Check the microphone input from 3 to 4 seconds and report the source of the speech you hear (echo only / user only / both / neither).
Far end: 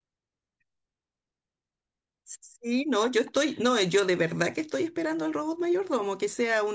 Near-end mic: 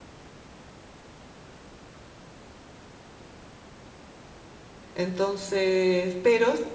neither